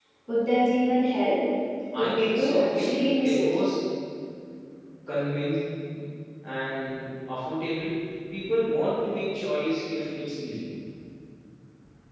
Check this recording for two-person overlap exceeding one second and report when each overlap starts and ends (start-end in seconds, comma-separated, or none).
2.2-3.5